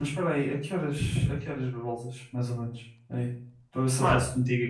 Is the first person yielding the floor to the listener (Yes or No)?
No